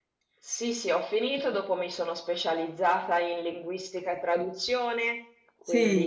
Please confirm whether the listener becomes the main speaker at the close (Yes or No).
No